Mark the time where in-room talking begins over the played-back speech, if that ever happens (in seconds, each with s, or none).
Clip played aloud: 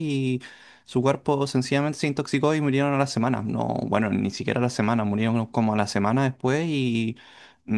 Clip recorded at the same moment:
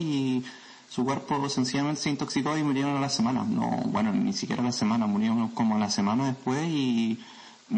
none